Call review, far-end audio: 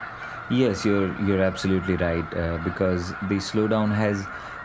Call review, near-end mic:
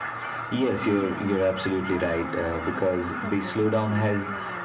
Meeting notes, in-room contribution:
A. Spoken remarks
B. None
A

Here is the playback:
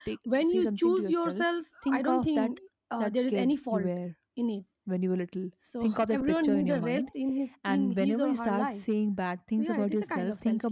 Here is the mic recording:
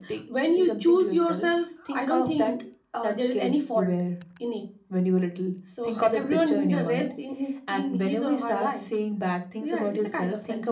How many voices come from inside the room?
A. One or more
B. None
B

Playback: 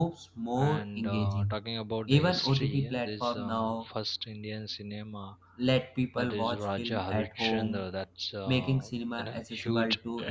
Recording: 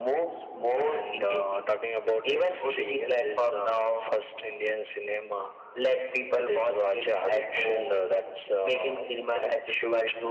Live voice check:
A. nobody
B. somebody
A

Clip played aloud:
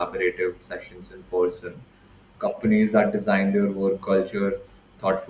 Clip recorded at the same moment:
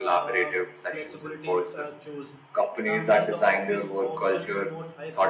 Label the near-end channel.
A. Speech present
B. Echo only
A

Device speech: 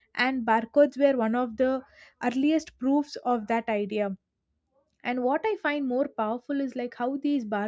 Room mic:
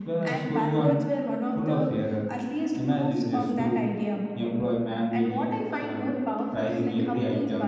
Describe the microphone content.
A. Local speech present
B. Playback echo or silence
A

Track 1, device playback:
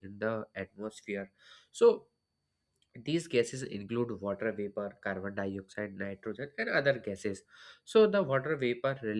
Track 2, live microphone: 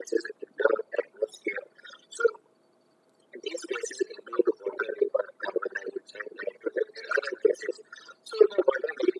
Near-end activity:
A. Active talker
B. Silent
B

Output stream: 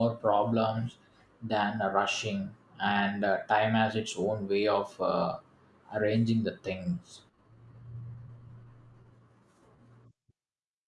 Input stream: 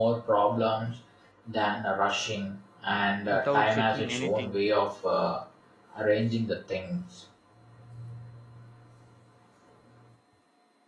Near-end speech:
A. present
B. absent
A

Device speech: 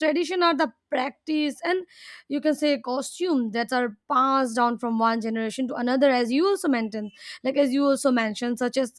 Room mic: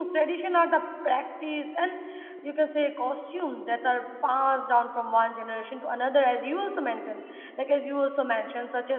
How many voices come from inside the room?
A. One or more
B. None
B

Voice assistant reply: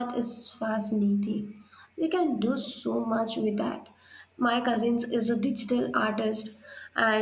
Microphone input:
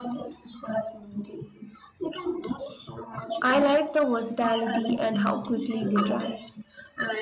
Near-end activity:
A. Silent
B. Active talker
B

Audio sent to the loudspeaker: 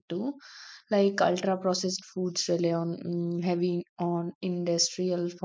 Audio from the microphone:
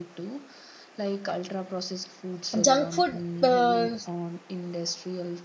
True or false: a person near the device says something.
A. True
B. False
A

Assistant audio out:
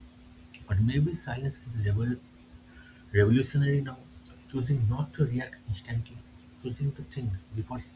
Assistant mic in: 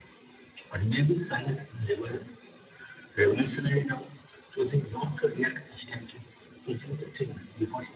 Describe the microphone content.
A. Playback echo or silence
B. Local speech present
A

